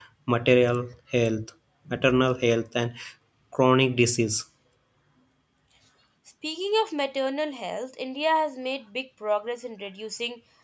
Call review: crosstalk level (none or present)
none